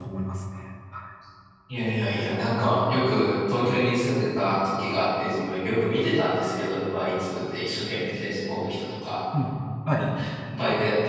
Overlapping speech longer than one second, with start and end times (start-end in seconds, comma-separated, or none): none